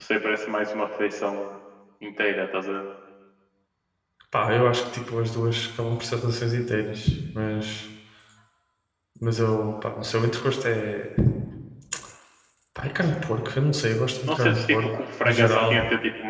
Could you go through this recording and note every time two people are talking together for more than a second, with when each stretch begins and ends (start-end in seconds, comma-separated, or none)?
14.3-15.8